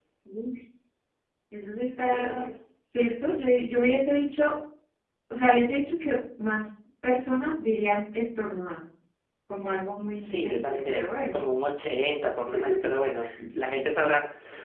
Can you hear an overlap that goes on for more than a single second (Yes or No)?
Yes